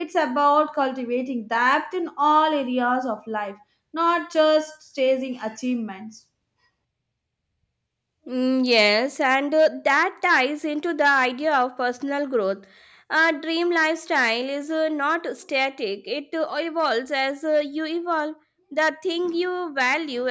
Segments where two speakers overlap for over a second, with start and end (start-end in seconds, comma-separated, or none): none